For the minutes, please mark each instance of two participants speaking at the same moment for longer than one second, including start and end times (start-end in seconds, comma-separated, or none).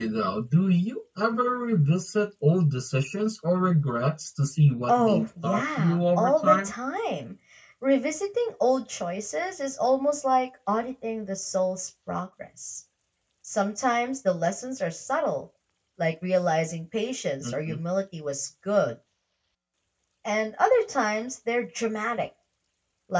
4.9-6.7